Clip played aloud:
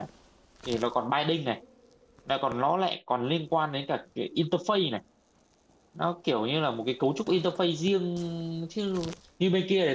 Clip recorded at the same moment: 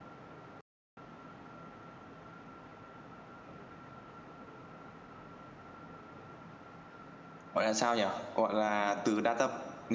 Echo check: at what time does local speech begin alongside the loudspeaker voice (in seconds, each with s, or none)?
7.5 s